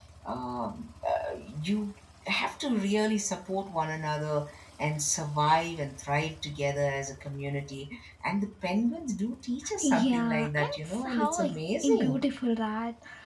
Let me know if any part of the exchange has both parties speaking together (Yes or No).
Yes